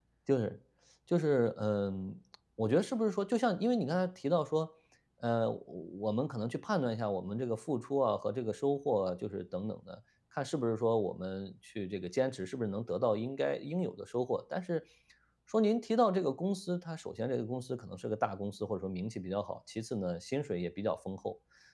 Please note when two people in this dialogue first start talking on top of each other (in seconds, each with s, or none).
none